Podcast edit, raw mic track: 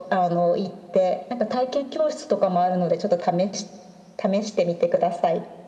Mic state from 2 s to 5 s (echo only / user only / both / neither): echo only